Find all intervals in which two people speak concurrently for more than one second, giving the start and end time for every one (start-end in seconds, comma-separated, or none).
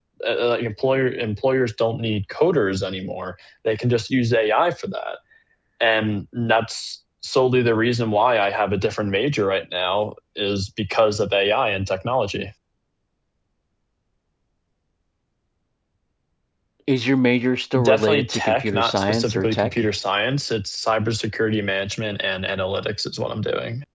17.8-19.7